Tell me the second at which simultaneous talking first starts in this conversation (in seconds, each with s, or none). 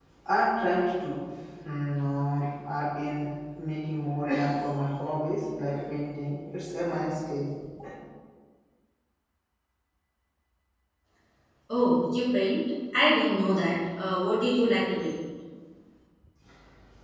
none